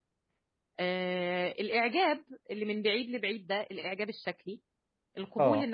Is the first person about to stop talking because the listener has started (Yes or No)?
No